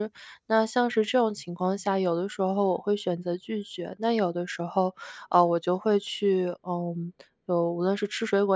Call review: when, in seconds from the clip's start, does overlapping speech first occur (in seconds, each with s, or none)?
none